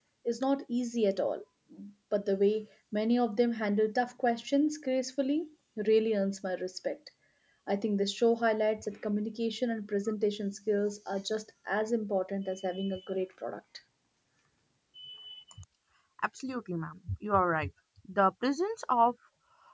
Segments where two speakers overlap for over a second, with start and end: none

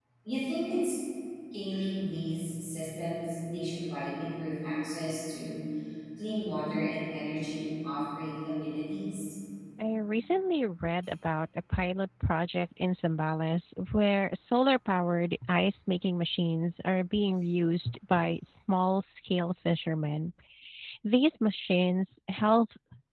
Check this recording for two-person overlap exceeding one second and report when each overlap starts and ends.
none

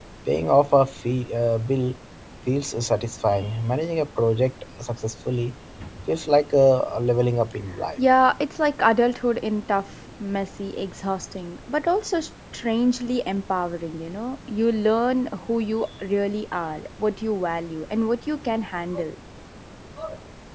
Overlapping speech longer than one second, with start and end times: none

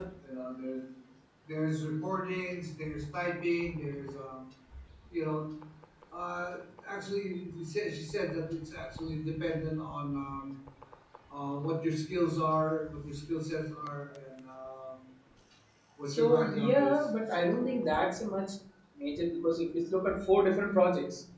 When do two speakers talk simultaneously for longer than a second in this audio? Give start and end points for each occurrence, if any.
16.1-18.0

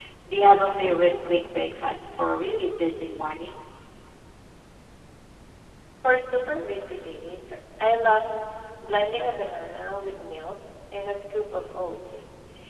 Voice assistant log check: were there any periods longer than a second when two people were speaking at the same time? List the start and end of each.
none

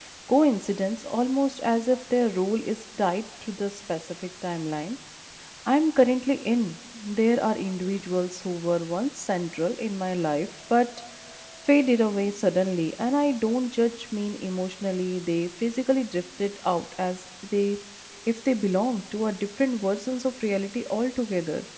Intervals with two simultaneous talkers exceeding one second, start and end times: none

